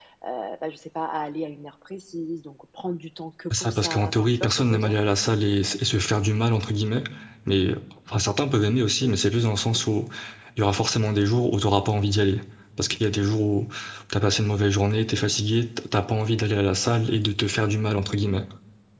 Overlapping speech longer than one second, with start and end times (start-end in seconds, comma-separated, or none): 3.5-5.0